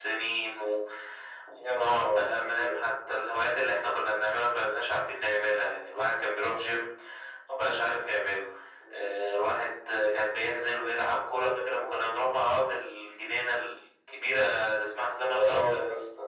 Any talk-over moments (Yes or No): Yes